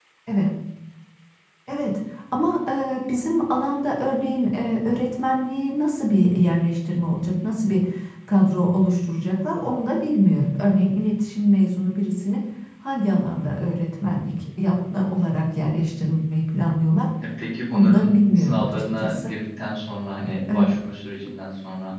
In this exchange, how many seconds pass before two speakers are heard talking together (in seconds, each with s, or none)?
17.7 s